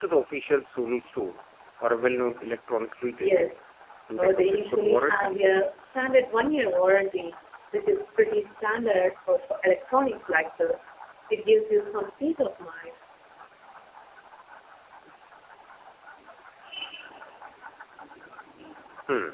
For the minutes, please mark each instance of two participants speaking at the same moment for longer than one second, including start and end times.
4.2-5.4

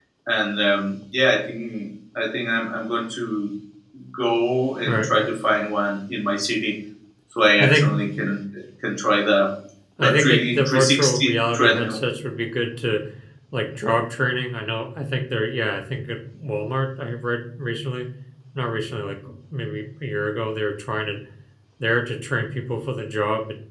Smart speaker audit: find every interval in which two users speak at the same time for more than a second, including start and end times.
10.0-12.0

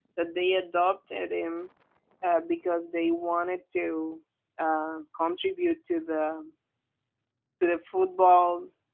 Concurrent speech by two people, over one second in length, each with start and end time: none

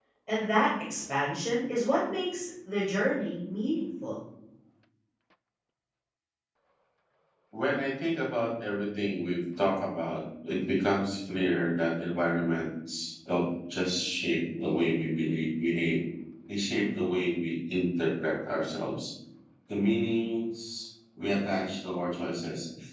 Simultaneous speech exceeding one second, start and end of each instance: none

